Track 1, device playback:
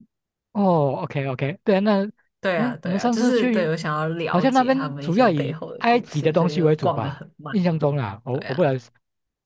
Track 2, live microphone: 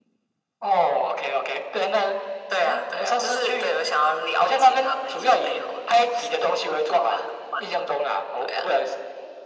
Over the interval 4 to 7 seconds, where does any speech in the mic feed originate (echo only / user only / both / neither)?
echo only